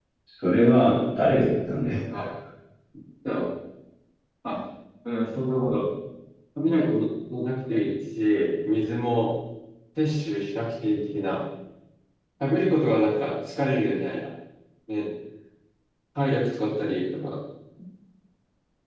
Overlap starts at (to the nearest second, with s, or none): none